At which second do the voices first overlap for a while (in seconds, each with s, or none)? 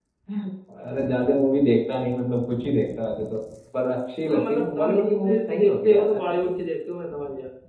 4.3 s